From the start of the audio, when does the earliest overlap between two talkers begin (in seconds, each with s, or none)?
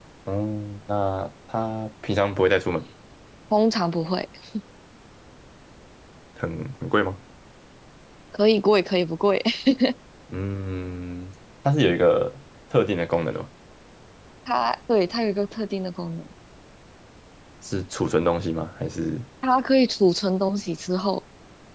none